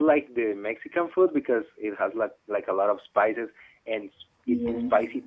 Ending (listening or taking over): listening